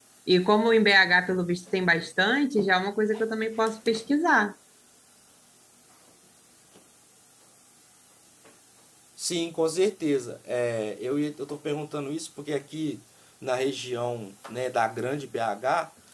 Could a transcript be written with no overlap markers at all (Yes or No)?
Yes